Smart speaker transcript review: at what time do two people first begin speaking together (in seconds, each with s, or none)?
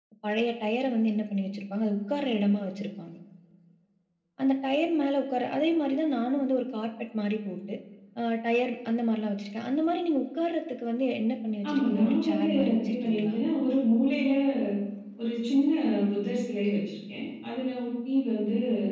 11.6 s